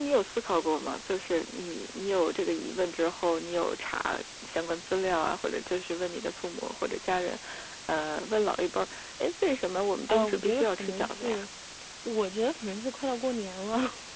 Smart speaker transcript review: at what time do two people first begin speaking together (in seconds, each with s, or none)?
10.1 s